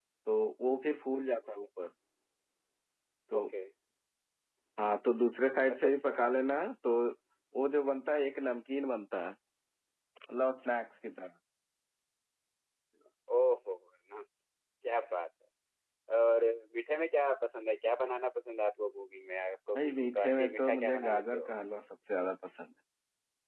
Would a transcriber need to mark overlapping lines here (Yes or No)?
Yes